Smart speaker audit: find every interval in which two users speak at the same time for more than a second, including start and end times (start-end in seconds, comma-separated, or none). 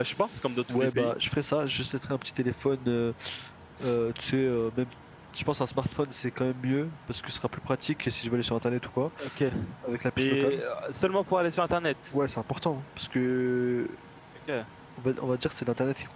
none